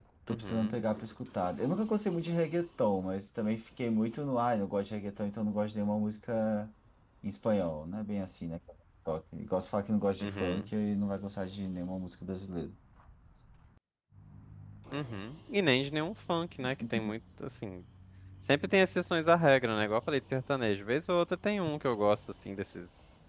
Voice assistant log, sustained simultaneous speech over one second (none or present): none